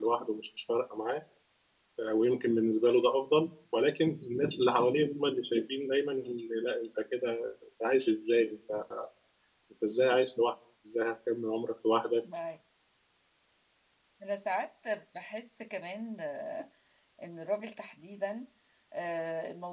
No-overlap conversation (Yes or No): Yes